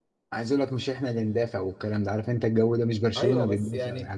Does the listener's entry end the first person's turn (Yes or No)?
Yes